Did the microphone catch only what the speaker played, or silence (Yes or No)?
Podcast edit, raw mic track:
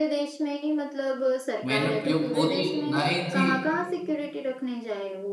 No